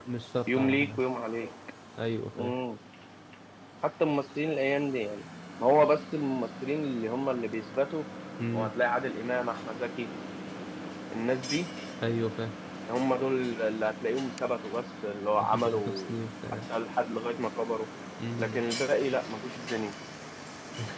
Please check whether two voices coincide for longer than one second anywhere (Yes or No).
Yes